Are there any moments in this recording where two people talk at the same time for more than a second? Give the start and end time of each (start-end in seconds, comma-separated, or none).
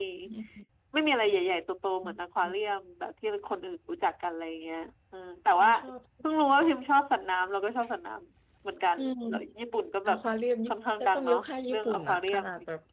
11.0-12.4